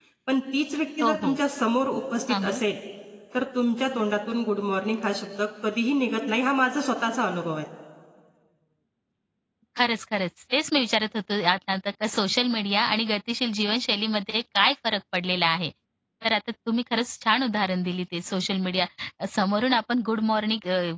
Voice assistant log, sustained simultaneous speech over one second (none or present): none